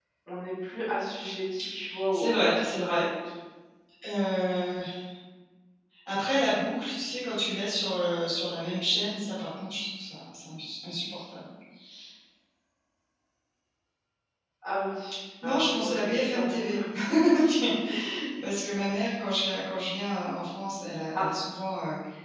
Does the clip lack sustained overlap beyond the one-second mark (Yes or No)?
No